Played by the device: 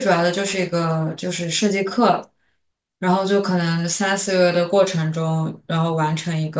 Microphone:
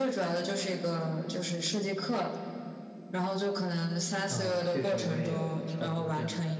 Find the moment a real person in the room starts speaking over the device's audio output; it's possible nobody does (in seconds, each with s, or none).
4.3 s